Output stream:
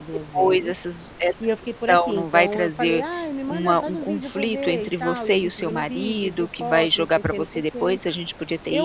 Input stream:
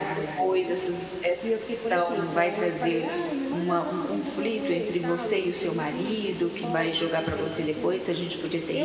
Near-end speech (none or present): none